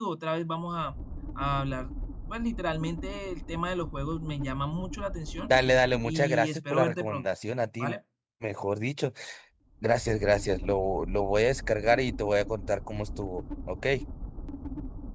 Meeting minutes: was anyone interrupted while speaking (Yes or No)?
Yes